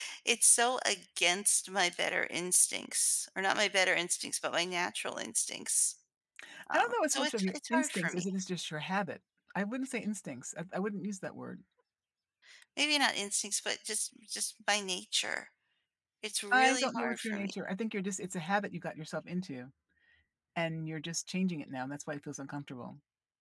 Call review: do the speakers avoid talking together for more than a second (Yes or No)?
No